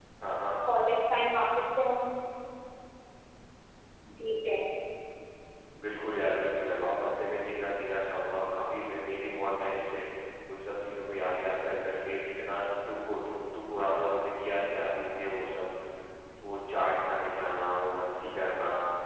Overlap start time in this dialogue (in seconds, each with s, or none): none